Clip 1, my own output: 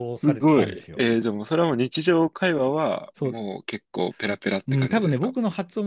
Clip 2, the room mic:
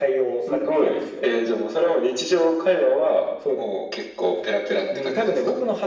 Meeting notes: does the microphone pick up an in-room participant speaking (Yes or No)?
No